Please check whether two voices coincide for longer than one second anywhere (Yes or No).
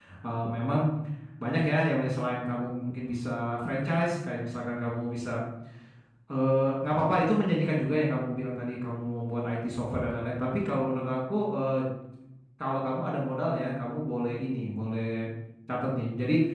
No